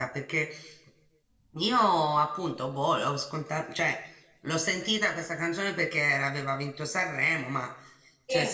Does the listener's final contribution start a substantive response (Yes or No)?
No